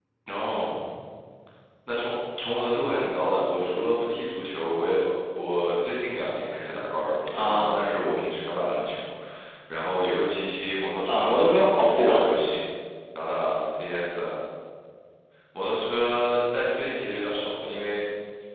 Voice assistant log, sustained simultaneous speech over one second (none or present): none